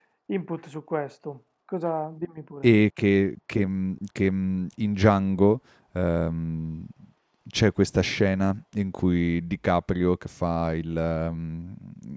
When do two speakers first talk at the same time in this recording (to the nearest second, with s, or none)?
none